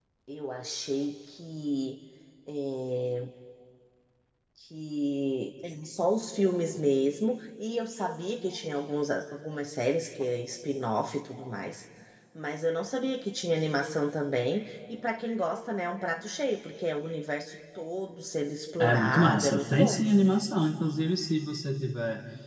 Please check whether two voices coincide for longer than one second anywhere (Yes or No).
Yes